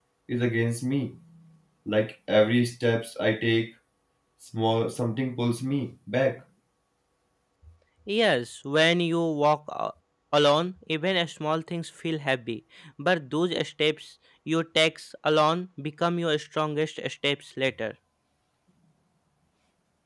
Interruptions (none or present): none